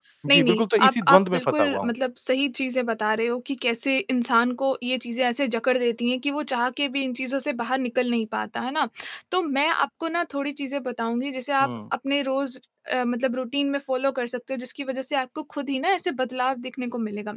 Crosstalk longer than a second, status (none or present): present